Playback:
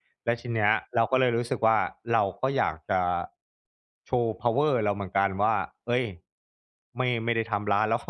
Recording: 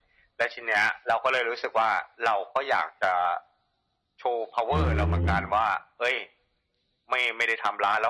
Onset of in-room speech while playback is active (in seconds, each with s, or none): 4.7 s